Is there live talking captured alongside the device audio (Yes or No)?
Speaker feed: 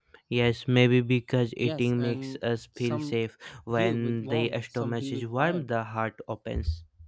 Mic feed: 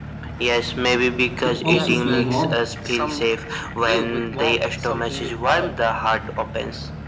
Yes